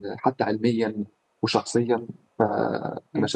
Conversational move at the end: taking over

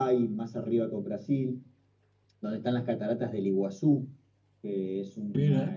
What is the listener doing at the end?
listening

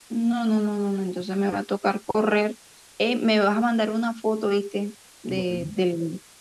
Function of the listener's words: listening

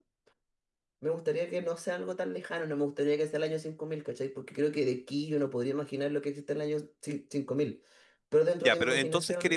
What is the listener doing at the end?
taking over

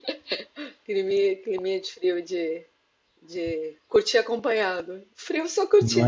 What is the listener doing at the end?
listening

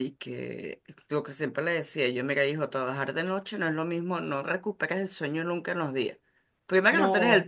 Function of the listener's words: listening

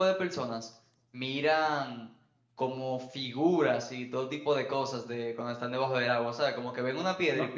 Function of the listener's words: taking over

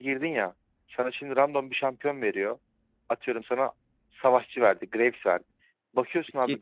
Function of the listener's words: listening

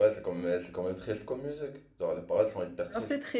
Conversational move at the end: taking over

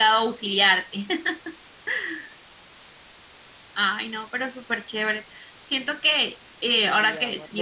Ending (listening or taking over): taking over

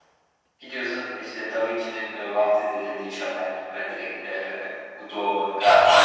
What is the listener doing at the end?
taking over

